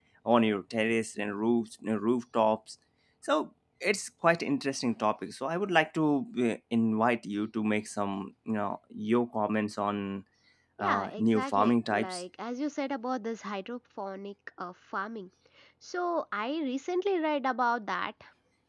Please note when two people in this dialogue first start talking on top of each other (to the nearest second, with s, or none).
11 s